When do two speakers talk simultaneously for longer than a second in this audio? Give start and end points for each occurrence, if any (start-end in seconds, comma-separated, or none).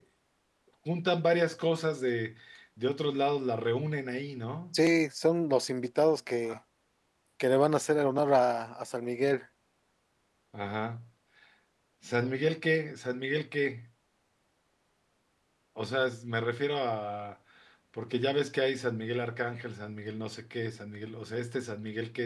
none